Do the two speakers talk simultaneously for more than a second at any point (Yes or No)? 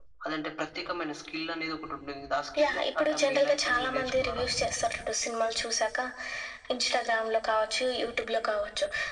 Yes